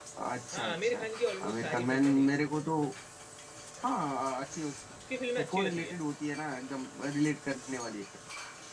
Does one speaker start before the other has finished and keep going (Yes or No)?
Yes